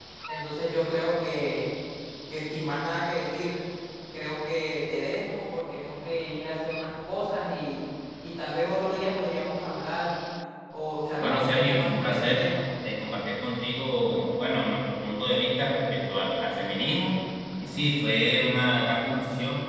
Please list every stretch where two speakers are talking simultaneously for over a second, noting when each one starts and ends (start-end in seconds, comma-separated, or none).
11.2-12.4